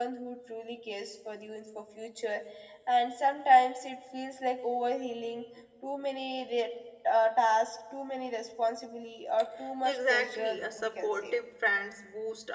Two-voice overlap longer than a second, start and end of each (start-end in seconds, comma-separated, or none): 9.8-11.4